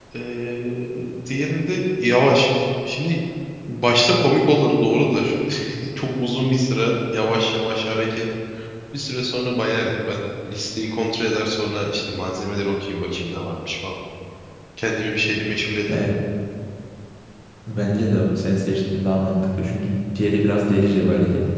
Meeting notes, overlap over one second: none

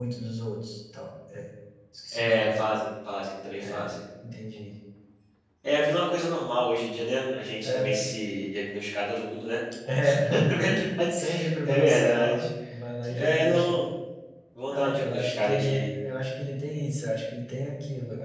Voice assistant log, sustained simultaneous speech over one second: present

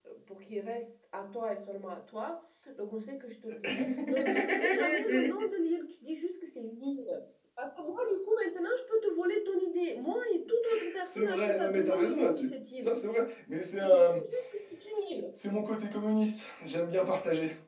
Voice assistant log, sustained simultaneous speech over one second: present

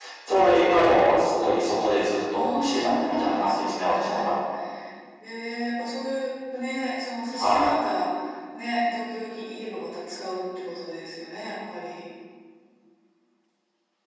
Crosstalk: present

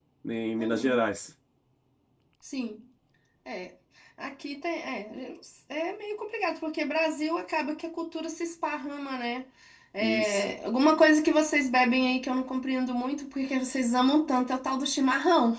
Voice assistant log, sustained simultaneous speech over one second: none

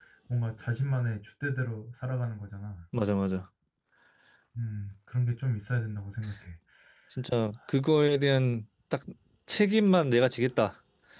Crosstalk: none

